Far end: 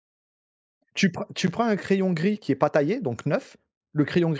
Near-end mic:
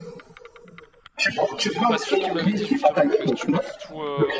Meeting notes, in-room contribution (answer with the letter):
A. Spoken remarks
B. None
A